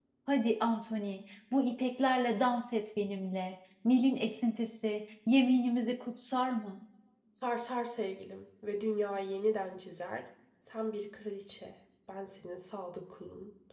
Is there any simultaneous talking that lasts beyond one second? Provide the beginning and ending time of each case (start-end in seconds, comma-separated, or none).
none